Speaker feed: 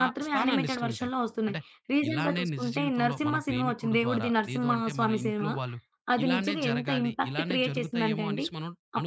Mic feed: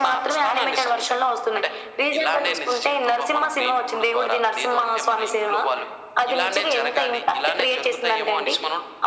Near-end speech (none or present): none